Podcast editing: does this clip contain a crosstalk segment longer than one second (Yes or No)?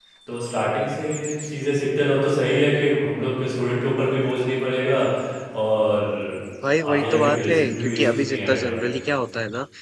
Yes